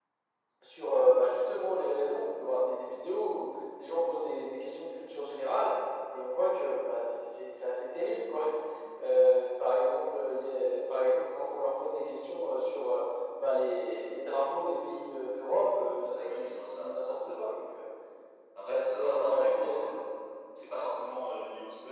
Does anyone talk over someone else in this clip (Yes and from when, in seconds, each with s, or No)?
Yes, from 16.2 s